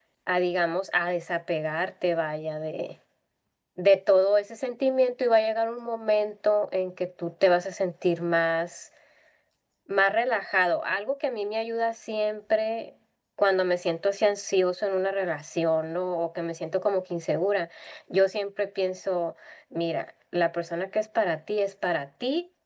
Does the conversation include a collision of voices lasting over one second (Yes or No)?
No